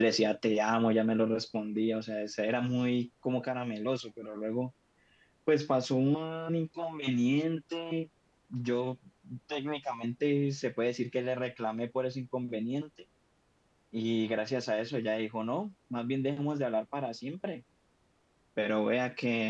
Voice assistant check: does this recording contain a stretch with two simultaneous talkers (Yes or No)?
No